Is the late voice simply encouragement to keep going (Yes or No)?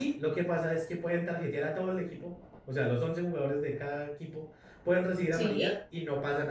Yes